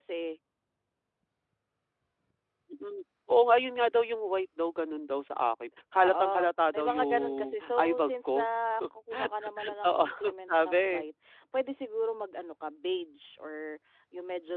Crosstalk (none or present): present